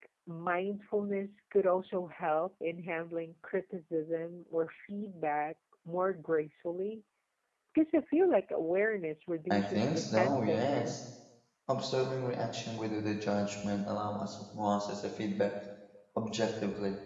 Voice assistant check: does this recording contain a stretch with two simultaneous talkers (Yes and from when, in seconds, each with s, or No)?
Yes, from 9.5 s